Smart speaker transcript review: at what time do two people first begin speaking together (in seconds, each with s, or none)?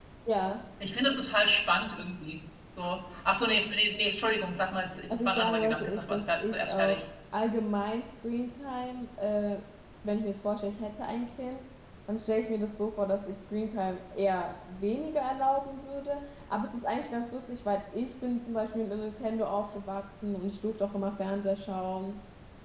5.1 s